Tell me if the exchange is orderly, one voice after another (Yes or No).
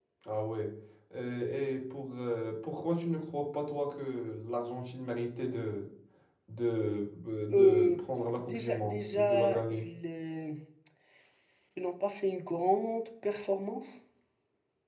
No